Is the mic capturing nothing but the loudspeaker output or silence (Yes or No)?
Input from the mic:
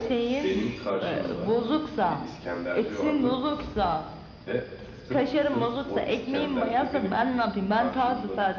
No